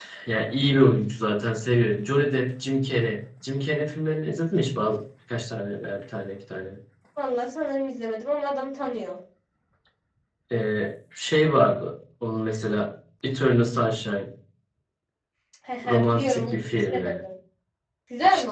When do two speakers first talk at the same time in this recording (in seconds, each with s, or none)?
15.8 s